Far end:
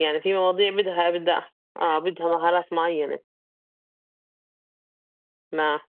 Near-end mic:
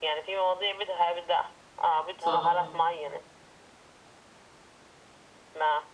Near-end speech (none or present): present